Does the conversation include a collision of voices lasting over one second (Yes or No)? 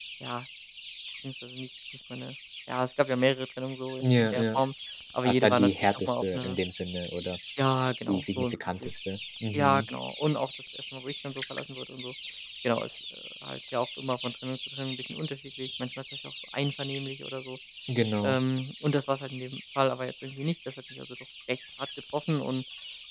Yes